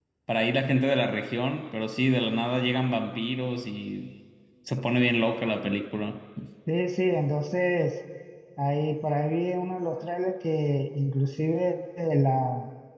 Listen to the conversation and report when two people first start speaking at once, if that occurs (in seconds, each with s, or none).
none